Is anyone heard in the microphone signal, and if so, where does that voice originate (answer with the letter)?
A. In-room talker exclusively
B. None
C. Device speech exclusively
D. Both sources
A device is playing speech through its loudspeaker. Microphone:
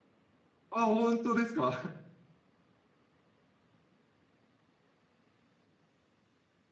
A